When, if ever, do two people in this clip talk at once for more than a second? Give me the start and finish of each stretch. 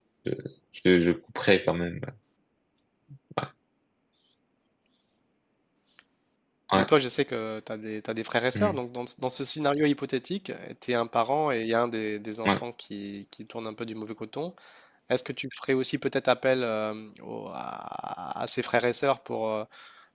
none

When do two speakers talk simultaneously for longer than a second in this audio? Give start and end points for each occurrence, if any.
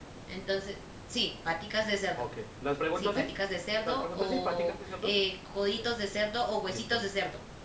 3.8-5.1

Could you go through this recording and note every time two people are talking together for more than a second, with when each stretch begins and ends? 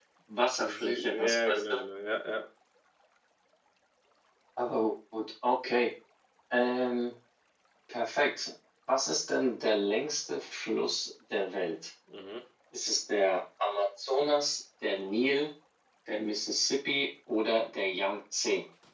0.6-1.8

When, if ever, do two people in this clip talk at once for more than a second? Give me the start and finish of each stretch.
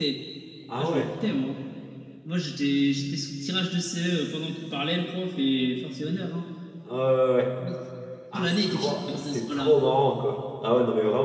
8.4-9.7

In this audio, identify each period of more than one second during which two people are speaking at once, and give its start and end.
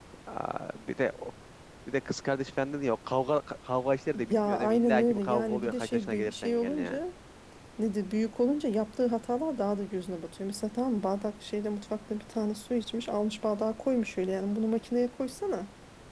4.3-7.0

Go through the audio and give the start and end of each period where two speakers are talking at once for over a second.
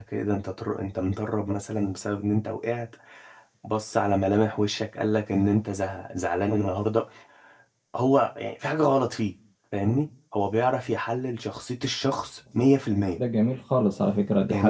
none

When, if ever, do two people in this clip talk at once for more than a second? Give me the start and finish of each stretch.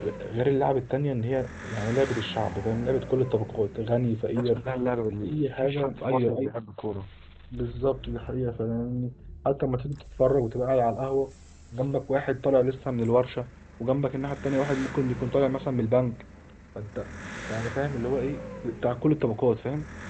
5.2-6.5

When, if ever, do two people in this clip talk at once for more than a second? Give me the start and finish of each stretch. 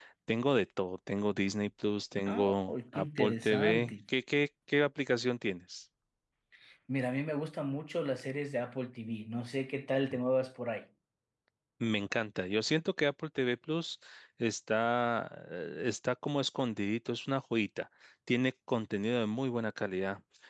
2.3-3.9

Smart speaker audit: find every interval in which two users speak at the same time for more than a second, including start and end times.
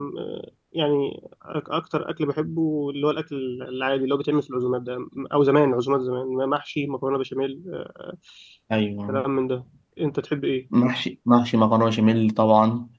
none

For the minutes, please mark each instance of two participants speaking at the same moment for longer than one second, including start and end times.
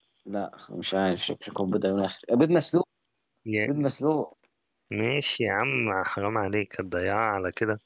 none

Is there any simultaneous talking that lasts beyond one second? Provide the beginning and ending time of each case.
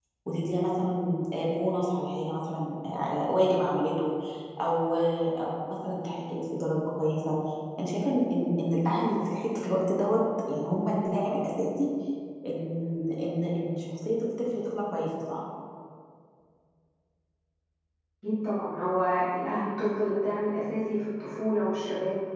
none

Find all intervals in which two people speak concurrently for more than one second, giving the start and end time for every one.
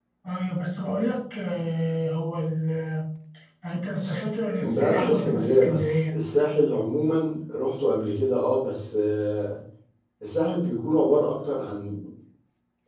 4.6-6.1

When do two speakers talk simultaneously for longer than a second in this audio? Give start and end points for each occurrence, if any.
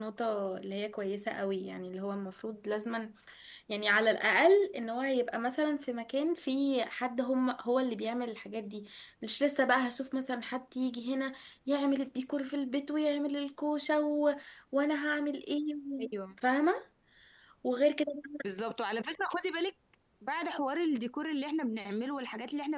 none

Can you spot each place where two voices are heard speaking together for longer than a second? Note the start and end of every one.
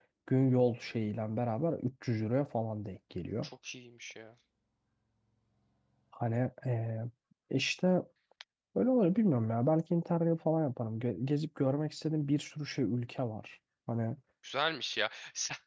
none

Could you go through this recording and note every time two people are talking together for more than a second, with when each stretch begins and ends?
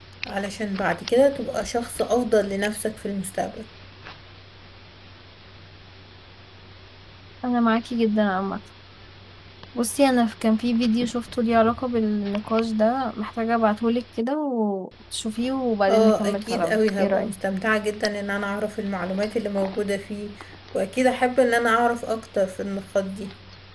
15.9-17.3

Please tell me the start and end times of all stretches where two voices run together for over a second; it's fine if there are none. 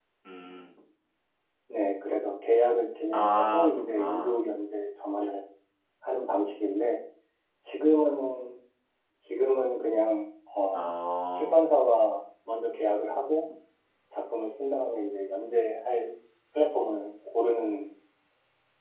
3.1-4.4

